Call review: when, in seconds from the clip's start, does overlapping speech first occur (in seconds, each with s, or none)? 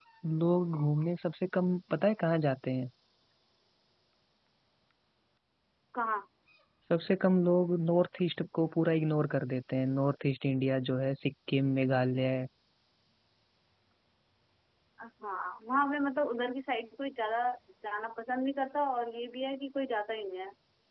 none